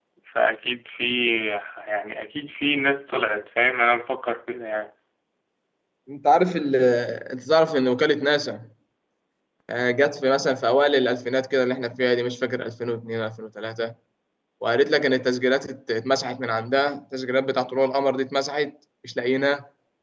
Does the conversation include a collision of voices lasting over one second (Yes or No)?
No